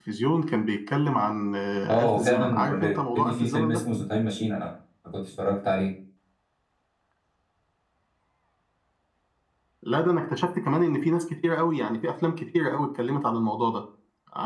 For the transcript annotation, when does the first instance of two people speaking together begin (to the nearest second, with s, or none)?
2 s